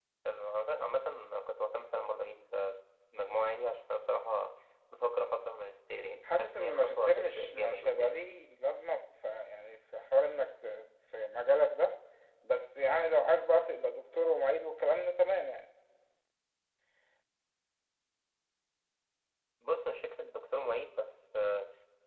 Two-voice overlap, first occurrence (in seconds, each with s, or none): 6.2 s